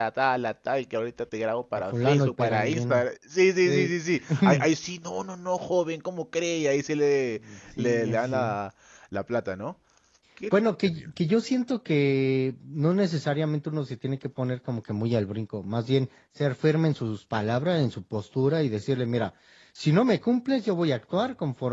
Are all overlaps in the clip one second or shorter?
No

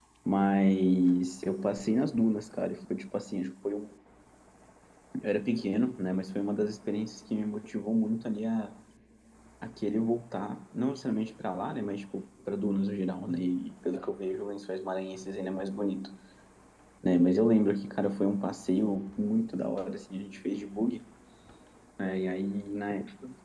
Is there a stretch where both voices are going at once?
No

